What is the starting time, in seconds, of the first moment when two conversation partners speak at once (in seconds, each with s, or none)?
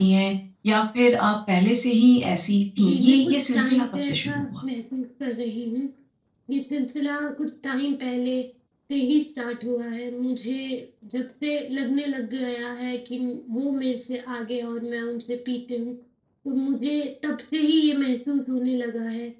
2.8 s